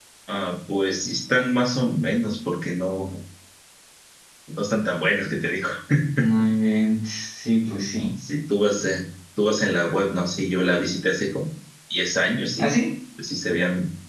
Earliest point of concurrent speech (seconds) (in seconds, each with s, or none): none